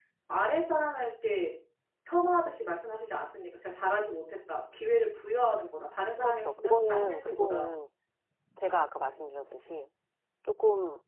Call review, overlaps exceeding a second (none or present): present